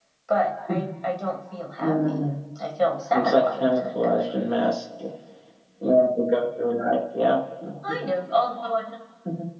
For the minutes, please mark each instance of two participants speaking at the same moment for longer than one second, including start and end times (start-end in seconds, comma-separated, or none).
3.1-4.4